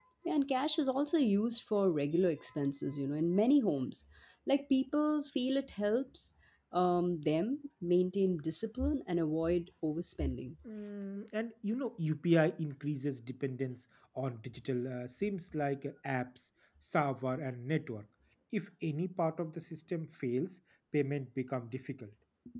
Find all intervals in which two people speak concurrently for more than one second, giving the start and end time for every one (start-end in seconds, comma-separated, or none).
none